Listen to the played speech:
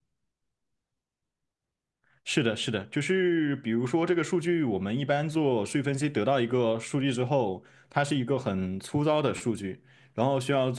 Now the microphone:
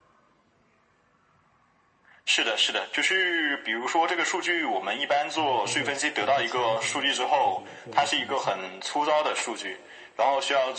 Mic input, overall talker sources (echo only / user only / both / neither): both